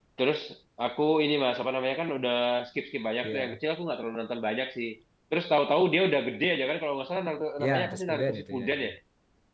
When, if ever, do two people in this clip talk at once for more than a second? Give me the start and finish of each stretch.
7.6-8.9

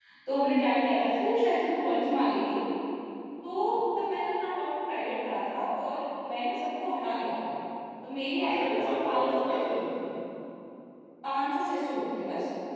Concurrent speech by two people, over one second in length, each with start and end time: 8.3-9.8

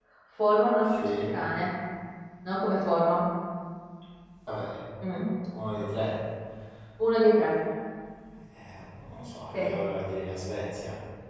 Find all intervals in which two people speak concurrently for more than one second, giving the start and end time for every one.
none

